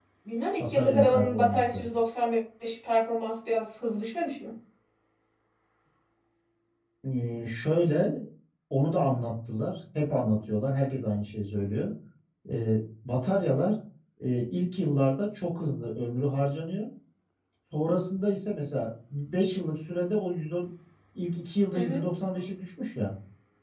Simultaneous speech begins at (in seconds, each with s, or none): 0.6 s